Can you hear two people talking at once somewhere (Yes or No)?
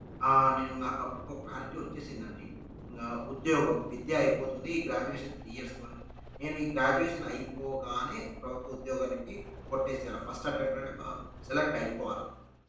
No